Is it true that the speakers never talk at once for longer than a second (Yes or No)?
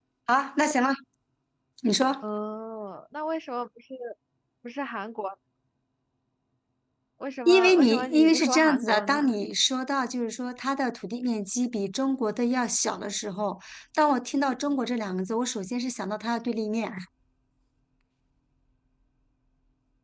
No